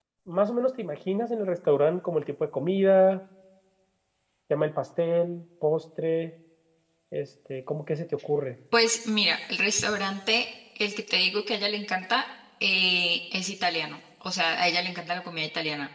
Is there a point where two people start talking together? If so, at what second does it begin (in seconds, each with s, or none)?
none